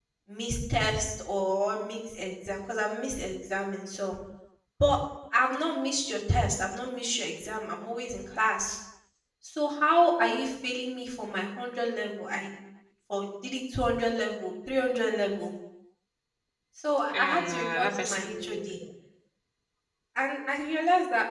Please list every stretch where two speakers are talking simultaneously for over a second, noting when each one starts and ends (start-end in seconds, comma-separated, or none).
17.1-18.8